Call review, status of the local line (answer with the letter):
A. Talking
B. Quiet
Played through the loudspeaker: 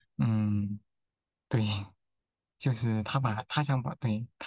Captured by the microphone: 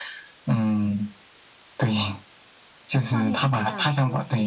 A